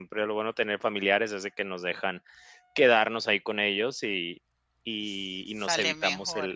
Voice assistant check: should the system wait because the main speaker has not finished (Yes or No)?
Yes